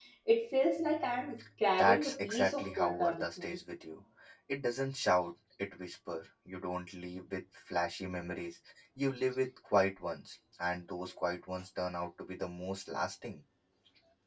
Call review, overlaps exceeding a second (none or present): present